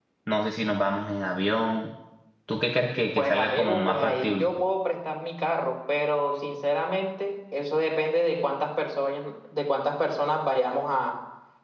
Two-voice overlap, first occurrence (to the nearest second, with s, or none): 3 s